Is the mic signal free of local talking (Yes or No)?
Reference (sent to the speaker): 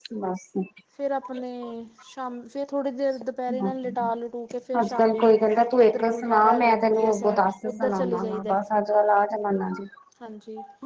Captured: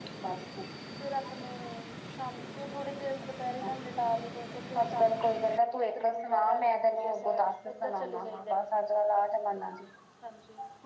Yes